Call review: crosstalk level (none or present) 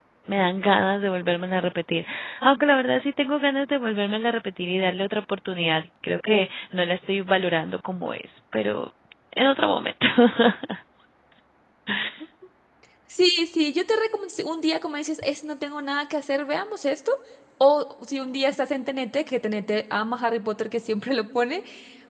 none